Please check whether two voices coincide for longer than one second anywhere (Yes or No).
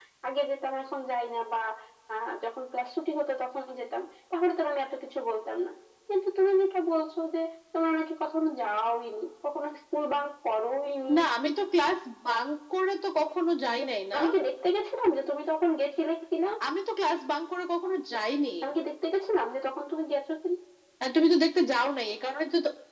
No